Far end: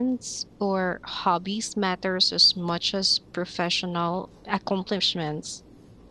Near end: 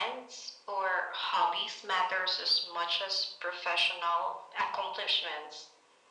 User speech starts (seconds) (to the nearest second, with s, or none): none